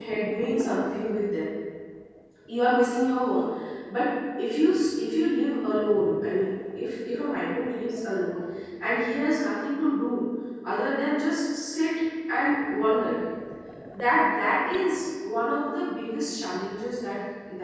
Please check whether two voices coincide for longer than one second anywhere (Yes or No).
No